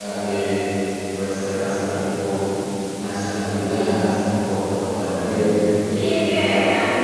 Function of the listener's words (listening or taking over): taking over